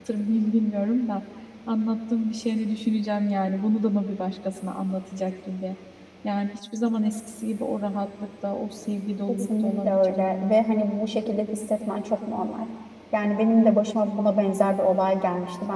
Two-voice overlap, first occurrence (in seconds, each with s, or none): 9.3 s